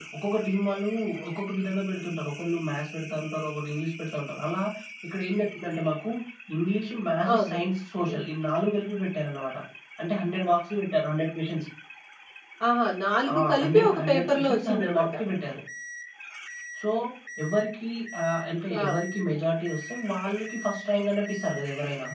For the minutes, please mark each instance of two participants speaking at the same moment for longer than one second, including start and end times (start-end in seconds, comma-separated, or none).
13.3-15.1